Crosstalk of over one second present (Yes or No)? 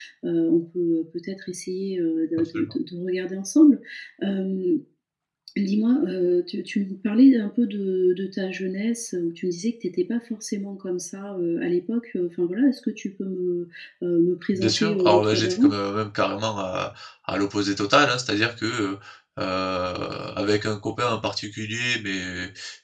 Yes